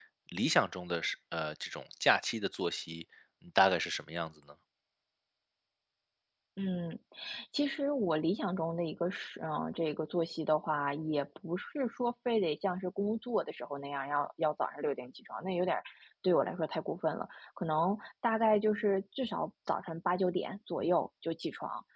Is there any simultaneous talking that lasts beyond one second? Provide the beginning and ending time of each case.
none

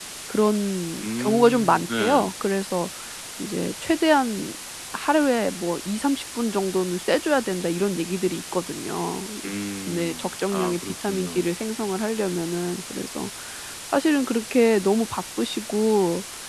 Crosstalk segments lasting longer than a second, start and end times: 1.0-2.2, 9.9-11.5

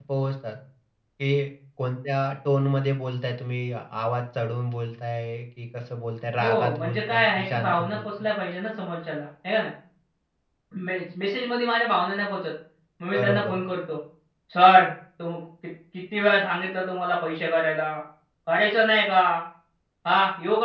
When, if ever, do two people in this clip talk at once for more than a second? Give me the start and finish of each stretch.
6.4-8.0

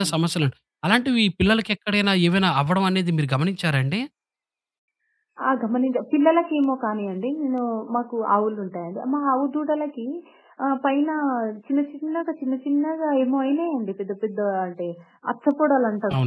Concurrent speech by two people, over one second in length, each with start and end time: none

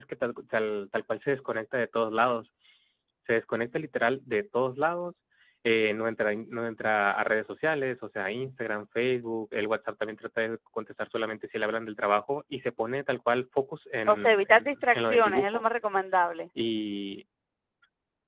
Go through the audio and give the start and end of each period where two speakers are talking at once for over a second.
14.1-15.6

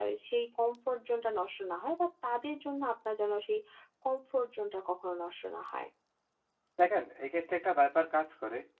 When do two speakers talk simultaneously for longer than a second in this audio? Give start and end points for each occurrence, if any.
none

